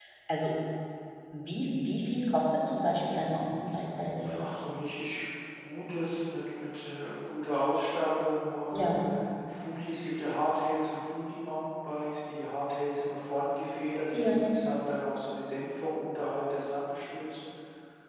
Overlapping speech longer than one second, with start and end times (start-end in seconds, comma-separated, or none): none